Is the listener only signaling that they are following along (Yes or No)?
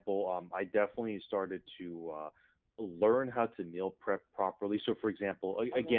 Yes